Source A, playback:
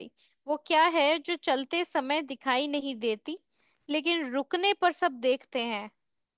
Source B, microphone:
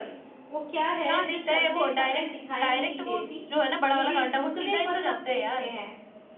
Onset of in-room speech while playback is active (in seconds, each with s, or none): 1.1 s